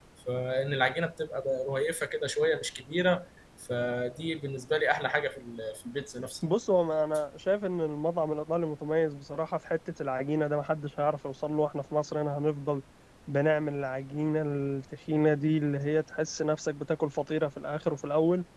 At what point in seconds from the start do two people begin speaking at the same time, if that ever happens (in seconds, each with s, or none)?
none